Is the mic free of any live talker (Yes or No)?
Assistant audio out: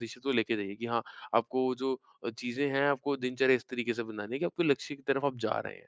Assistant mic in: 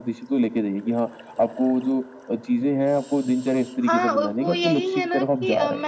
No